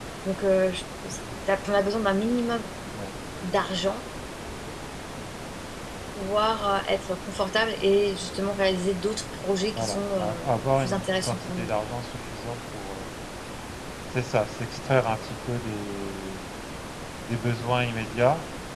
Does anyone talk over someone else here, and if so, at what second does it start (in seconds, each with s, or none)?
9.8 s